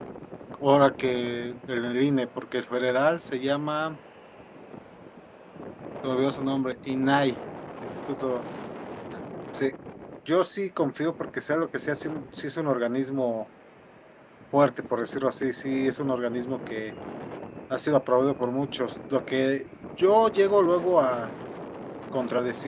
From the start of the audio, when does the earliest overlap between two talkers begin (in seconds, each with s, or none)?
none